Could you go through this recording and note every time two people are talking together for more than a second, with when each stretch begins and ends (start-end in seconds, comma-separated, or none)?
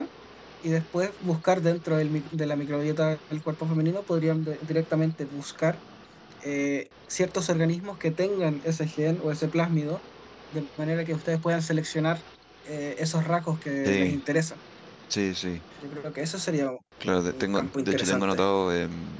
17.0-18.4